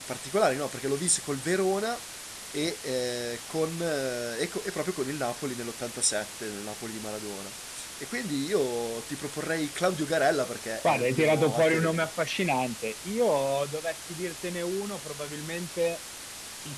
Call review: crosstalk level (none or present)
present